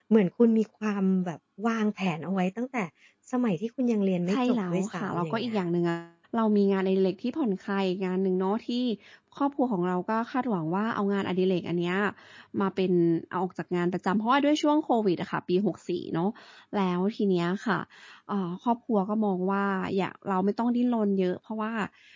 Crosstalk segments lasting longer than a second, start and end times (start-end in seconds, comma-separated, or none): 4.3-5.6